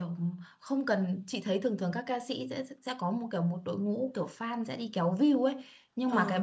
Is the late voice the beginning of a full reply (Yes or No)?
No